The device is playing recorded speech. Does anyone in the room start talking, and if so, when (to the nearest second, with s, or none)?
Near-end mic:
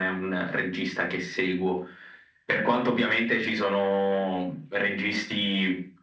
none